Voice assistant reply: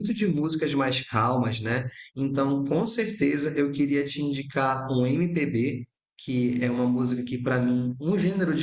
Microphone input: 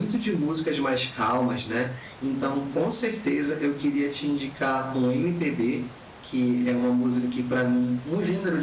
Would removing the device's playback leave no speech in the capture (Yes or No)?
Yes